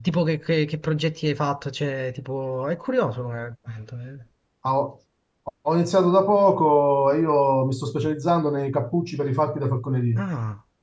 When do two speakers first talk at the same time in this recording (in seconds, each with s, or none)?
none